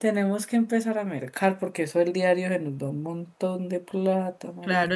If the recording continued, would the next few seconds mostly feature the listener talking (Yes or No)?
Yes